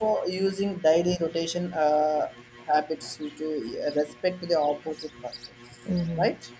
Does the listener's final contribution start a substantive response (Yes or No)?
Yes